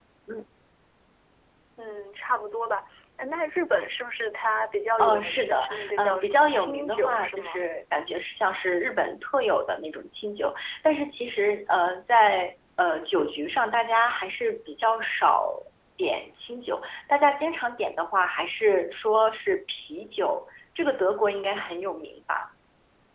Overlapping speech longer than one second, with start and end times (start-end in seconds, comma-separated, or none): 5.0-7.6